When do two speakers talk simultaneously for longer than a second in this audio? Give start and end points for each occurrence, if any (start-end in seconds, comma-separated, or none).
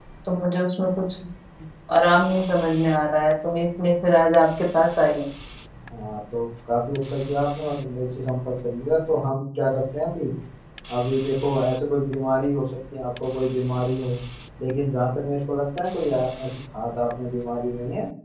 none